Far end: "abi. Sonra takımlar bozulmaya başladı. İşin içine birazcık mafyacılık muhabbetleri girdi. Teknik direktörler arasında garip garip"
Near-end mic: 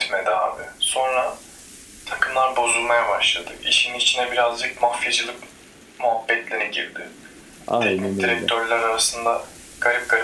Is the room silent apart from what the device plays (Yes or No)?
No